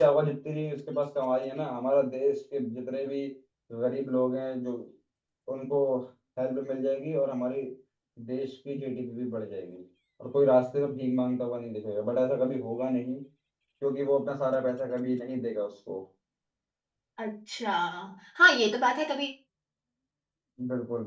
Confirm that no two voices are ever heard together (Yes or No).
Yes